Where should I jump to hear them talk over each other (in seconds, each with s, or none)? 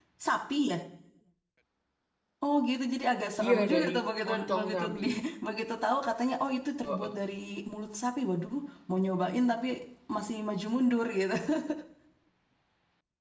3.4 s